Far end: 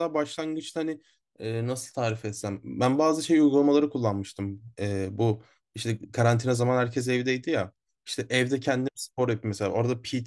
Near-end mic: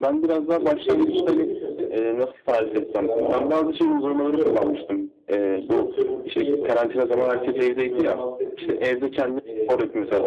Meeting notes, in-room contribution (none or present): present